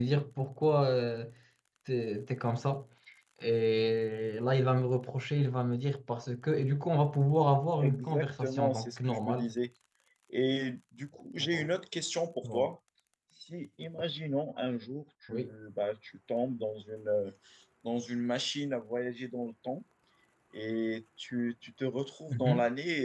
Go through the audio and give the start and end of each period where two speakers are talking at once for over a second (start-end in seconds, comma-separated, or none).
7.8-9.5